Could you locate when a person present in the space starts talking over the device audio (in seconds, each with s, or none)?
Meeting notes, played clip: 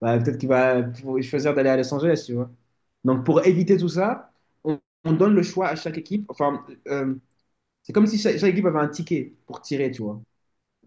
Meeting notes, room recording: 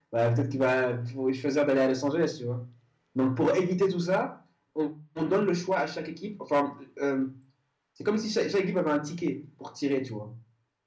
none